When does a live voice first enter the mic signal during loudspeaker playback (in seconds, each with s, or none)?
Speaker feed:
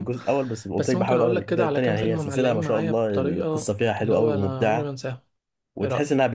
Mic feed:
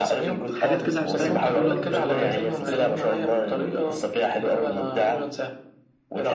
0.5 s